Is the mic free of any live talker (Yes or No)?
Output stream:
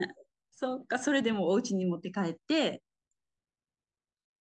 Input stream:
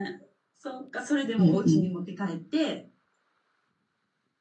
No